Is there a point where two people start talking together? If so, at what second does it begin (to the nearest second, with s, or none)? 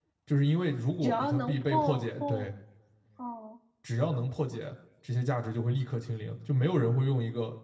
1 s